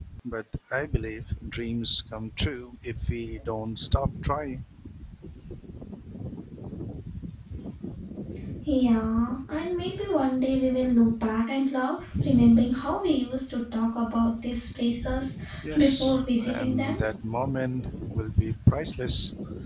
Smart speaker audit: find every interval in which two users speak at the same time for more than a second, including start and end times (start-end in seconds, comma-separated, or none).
15.8-17.0